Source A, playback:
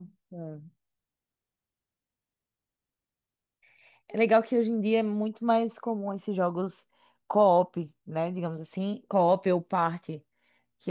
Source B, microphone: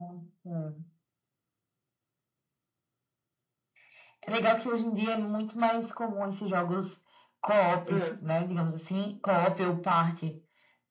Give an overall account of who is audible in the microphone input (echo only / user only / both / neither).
both